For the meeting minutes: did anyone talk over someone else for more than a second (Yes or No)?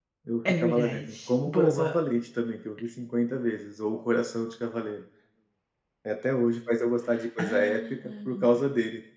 Yes